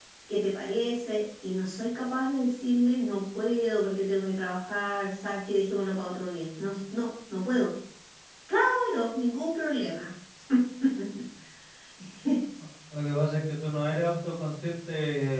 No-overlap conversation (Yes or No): Yes